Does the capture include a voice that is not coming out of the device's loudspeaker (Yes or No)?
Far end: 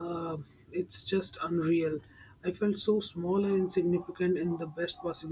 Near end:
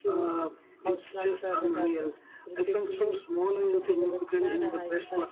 Yes